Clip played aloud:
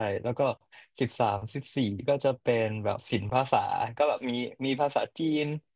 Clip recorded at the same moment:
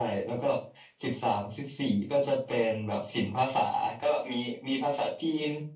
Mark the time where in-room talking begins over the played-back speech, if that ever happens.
none

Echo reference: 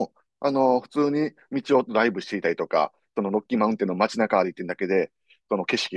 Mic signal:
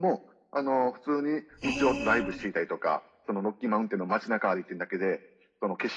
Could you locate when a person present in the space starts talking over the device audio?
1.6 s

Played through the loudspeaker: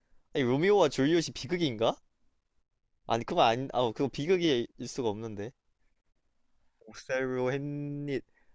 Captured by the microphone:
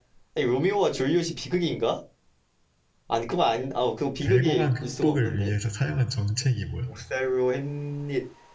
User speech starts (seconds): 4.2 s

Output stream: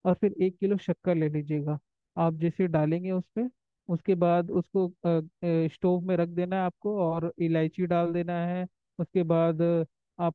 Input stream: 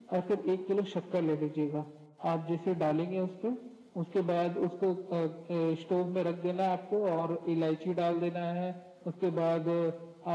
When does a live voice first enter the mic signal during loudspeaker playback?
none

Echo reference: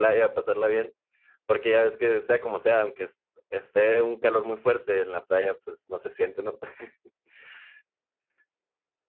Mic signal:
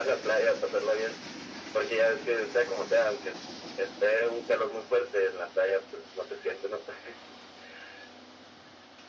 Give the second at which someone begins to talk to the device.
none

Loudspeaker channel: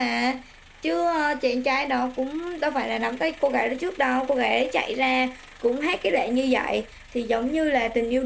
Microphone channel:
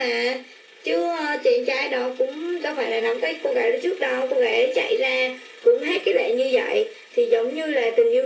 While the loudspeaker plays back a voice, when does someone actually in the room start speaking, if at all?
none

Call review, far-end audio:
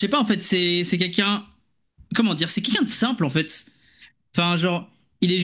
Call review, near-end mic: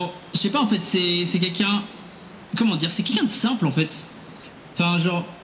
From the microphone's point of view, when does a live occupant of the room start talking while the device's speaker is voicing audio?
none

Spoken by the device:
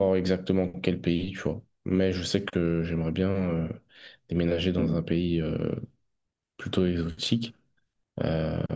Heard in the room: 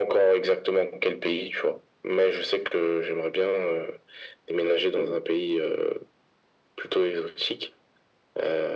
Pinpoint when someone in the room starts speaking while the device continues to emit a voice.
none

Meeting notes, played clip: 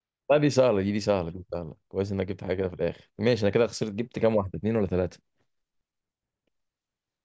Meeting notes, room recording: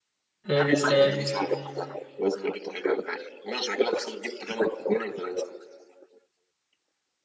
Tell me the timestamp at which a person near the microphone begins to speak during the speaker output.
0.5 s

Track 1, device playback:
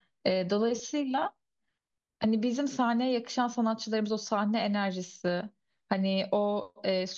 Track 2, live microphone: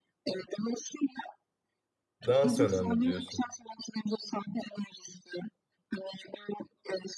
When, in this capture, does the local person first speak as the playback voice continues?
2.2 s

